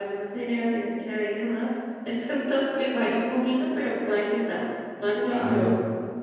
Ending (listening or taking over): taking over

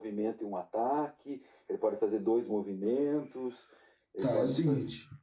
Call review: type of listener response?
taking over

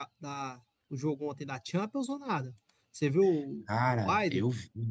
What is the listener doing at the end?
taking over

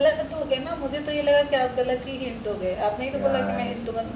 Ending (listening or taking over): taking over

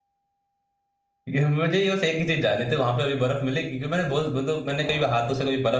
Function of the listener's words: listening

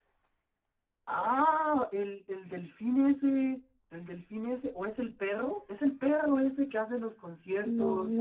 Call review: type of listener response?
taking over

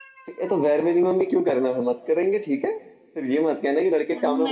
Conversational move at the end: taking over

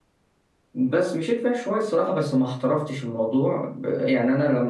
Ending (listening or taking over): listening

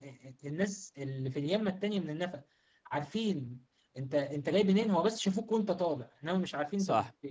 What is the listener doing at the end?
taking over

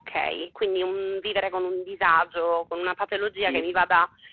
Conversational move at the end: listening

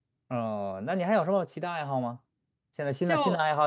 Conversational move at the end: listening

